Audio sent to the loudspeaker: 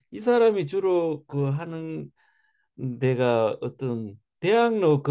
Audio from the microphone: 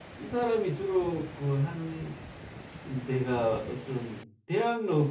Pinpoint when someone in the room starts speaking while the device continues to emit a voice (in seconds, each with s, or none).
none